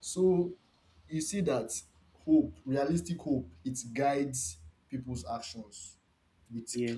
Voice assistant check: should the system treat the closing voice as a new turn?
No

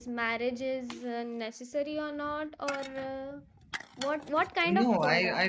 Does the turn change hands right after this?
Yes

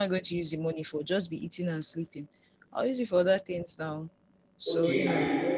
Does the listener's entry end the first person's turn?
Yes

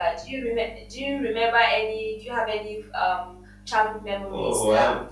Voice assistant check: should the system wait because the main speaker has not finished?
No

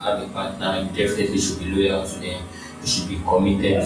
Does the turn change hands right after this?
No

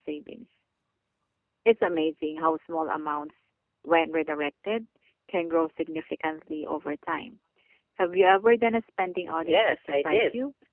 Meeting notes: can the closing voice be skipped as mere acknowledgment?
No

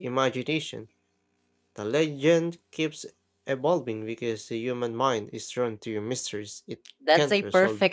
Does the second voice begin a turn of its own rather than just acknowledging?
Yes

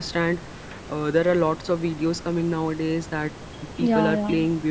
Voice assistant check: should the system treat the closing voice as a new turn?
No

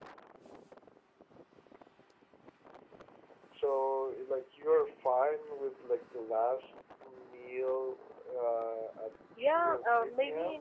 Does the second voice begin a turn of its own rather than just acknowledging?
Yes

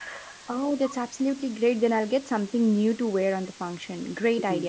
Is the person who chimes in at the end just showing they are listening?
No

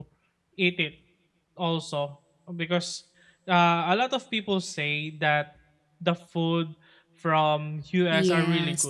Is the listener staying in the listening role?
No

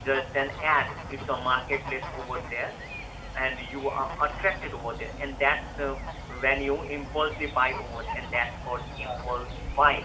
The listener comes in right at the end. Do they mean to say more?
Yes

